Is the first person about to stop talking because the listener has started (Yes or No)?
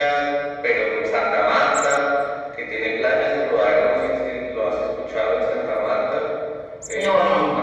No